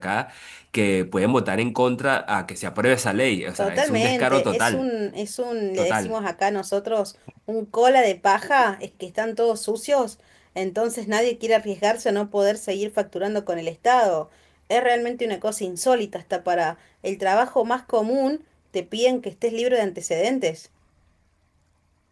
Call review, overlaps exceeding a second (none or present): present